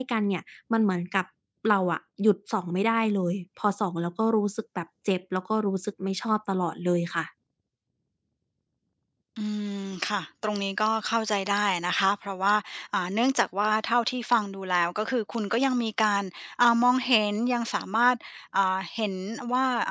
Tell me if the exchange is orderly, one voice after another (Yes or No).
Yes